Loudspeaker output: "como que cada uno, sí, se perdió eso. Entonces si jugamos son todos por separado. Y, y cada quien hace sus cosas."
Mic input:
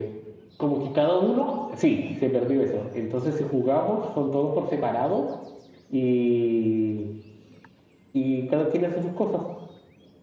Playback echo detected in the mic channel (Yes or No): Yes